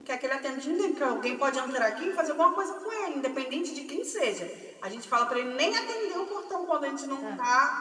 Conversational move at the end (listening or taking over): listening